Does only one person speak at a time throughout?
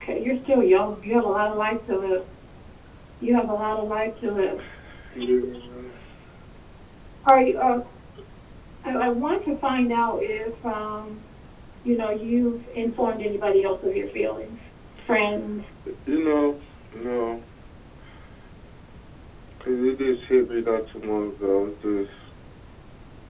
Yes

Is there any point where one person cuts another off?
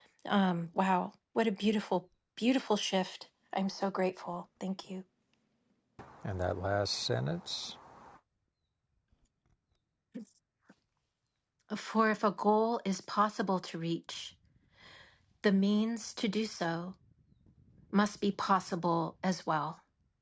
No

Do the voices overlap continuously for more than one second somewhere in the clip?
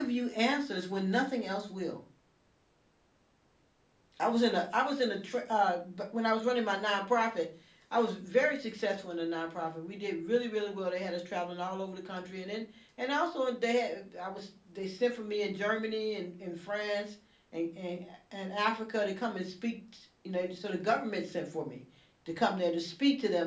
No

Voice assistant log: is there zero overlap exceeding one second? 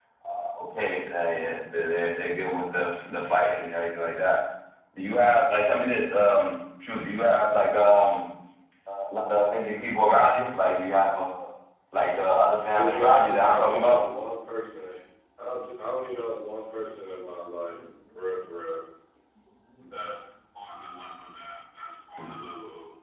No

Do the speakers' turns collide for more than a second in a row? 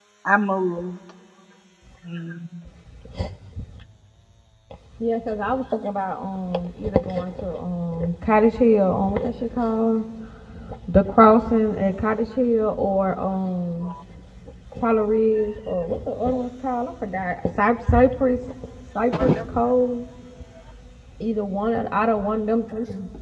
No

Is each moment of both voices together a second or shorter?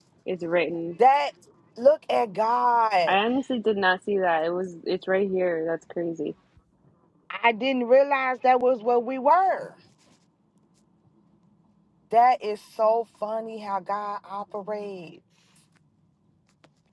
Yes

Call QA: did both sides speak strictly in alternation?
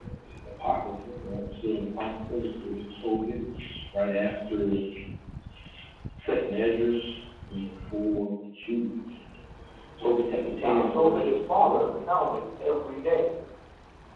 No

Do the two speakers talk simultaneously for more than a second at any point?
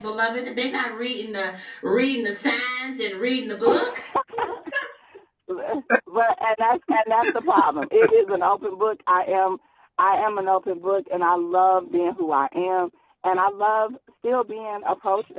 No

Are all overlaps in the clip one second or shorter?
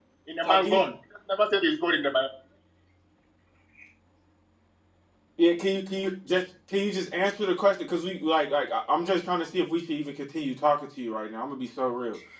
Yes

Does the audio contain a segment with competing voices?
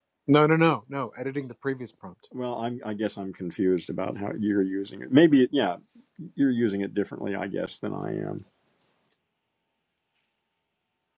No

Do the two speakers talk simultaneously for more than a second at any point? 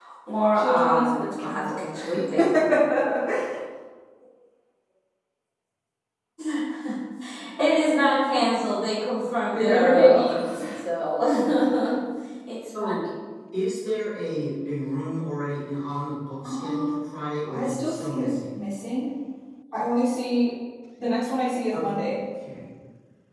Yes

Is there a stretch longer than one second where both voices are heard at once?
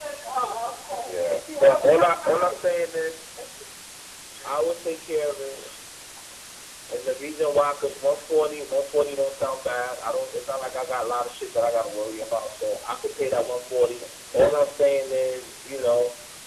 Yes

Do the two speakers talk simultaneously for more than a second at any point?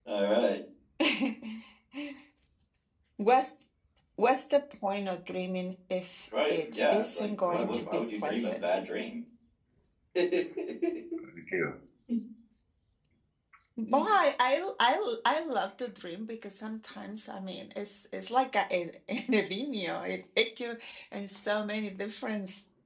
Yes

